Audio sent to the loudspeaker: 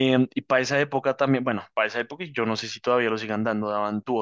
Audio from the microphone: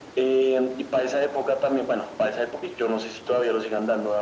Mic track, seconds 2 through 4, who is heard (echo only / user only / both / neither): echo only